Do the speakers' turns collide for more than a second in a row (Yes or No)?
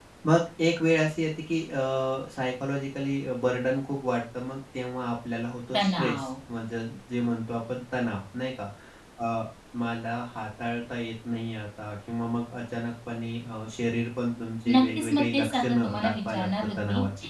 Yes